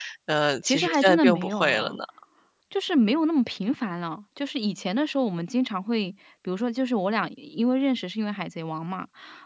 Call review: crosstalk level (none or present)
present